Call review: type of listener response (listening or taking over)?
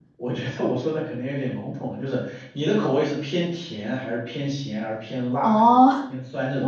taking over